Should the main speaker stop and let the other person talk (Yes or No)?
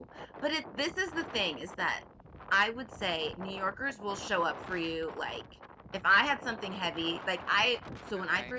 No